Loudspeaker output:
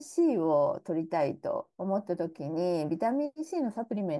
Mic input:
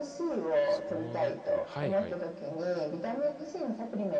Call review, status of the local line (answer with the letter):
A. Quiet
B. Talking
B